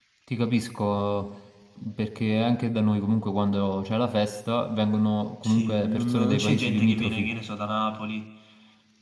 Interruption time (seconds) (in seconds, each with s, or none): 5.4 s